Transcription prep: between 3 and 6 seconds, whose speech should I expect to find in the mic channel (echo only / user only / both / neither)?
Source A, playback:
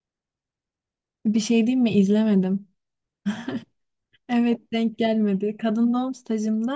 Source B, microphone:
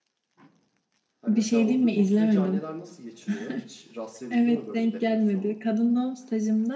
both